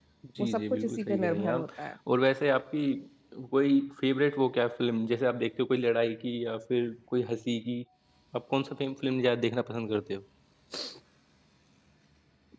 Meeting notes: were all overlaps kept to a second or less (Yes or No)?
No